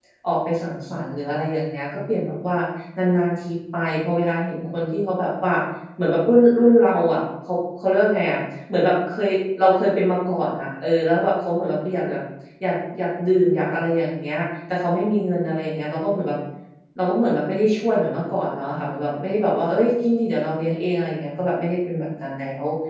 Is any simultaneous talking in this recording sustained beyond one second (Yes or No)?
No